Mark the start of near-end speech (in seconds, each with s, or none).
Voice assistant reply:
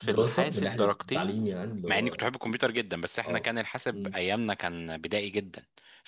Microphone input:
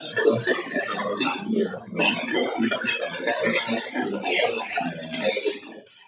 none